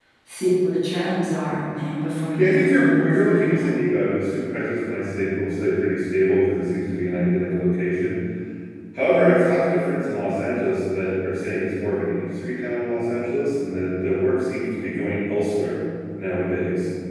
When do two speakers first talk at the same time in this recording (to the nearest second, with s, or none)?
2 s